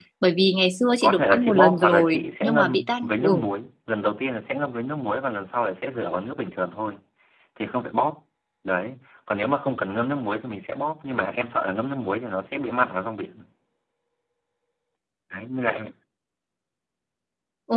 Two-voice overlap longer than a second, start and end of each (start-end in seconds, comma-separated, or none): 1.0-3.4